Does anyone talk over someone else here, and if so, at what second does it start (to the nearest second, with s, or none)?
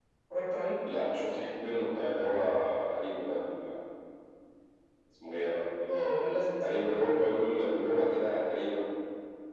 6 s